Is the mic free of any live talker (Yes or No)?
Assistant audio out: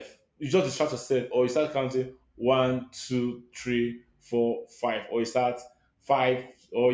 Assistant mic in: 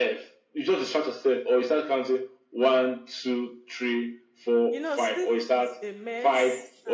No